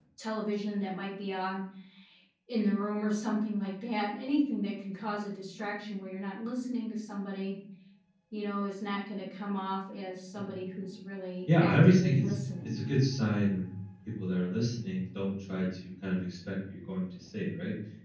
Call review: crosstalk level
present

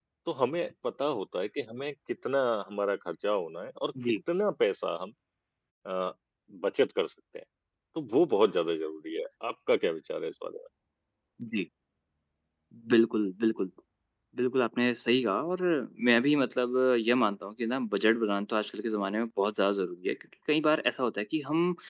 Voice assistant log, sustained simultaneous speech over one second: none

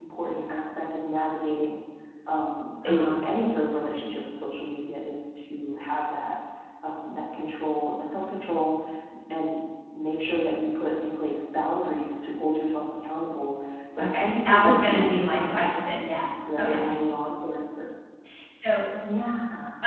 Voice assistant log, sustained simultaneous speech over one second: present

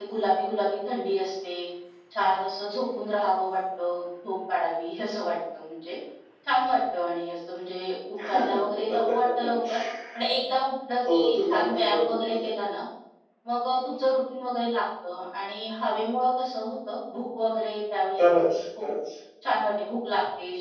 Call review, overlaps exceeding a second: present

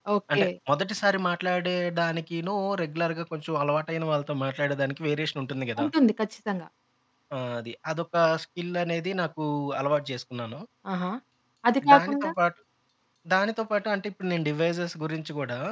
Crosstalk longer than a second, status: none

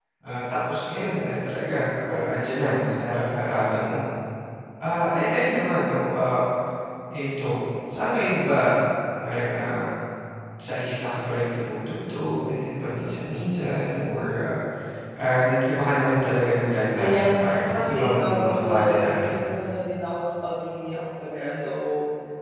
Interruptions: present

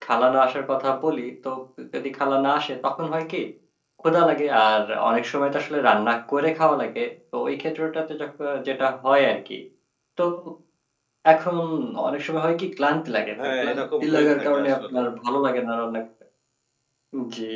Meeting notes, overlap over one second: present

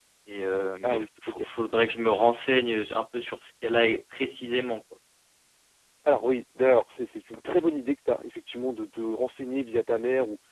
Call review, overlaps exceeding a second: none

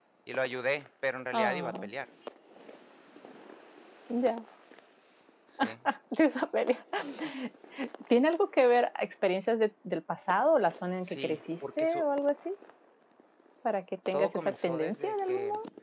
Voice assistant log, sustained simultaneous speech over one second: present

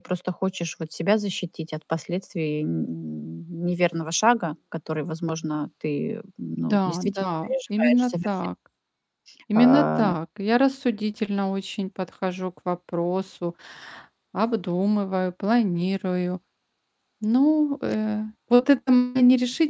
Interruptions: present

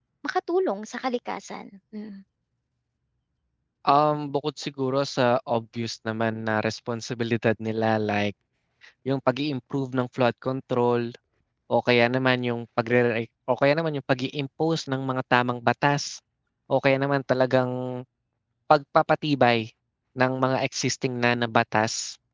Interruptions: none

